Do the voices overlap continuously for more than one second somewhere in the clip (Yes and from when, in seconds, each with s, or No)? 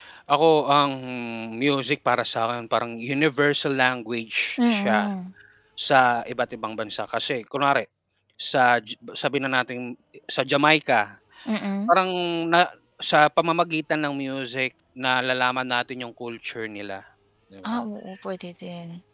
No